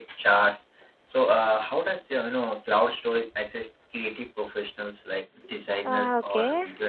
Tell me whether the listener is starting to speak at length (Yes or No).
Yes